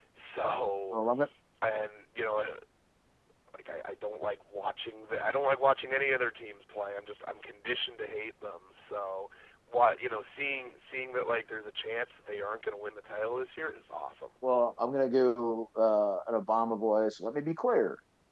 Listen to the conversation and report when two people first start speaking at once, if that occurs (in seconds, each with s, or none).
none